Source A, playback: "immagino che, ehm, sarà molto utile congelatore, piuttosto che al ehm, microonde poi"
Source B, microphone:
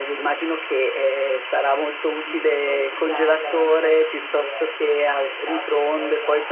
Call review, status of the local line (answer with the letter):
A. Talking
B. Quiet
A